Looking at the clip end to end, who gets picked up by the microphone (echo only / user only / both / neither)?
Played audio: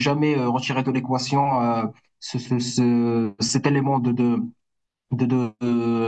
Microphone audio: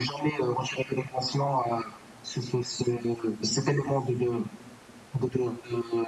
echo only